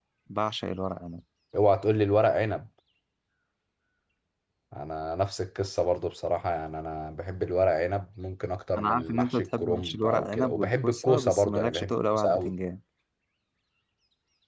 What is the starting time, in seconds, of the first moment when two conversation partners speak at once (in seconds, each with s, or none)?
8.8 s